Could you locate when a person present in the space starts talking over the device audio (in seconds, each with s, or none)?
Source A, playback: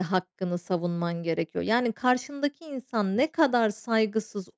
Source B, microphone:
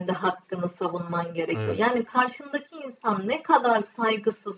1.5 s